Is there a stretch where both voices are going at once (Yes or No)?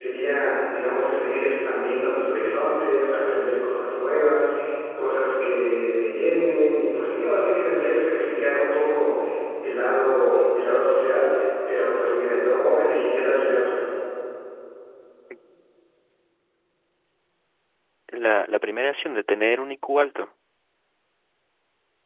No